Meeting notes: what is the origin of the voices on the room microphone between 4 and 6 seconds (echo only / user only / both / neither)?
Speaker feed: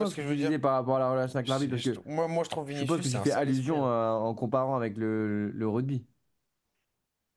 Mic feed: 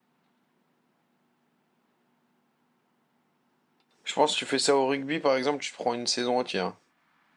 user only